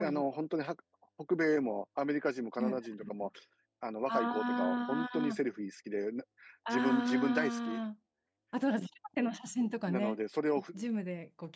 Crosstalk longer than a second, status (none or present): present